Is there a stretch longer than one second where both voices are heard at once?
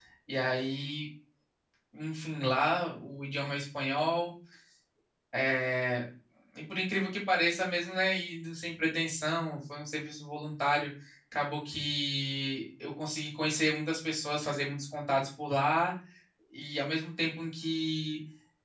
No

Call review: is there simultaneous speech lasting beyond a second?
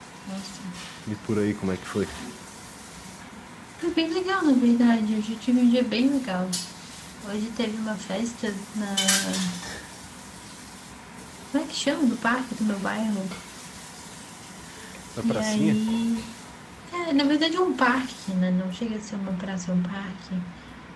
No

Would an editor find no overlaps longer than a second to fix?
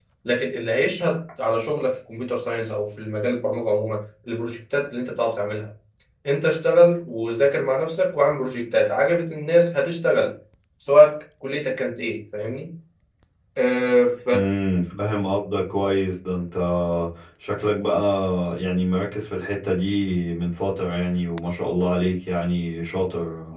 Yes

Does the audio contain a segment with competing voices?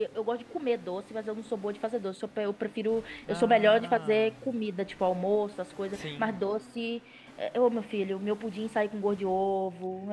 Yes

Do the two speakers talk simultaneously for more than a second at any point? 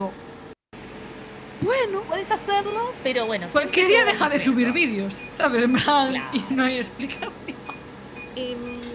Yes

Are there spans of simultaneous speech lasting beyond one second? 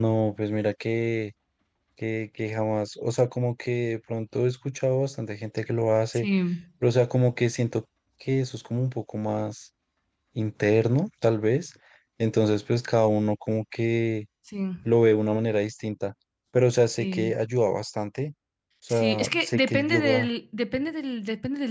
Yes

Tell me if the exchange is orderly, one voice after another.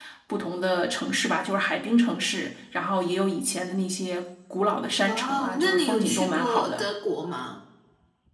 No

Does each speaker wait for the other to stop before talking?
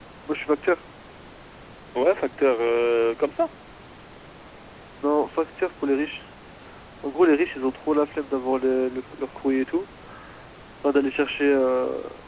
Yes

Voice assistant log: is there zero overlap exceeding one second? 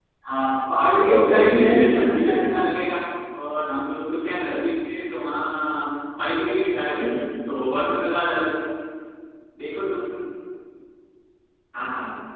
No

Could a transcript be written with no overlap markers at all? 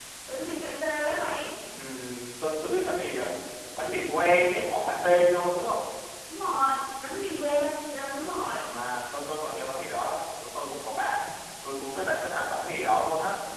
Yes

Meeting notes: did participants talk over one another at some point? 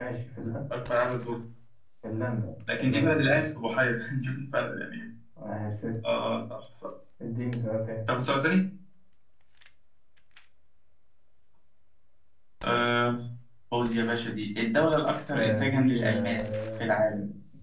Yes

